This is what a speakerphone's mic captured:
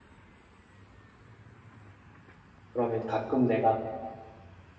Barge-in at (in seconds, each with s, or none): 2.7 s